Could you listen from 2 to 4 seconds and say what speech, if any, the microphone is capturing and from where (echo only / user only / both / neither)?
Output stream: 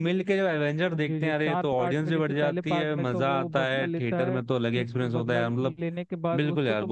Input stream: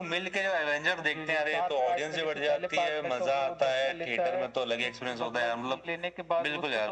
echo only